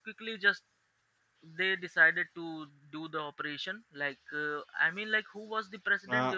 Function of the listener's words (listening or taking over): taking over